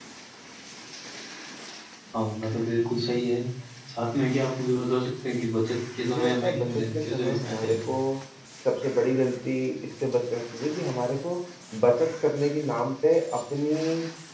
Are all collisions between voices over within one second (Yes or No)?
No